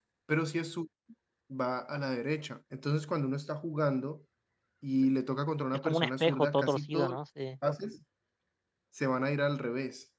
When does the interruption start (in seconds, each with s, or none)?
5.7 s